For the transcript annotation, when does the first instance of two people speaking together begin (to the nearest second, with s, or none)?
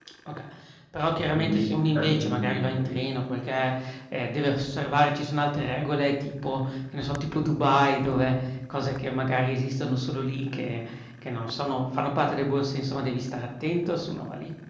1 s